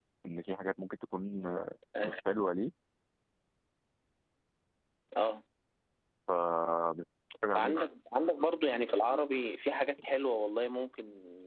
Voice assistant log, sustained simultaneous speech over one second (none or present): none